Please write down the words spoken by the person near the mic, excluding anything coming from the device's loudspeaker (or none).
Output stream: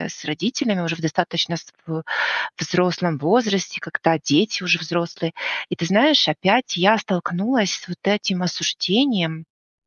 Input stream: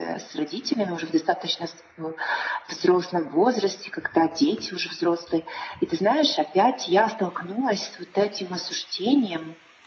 none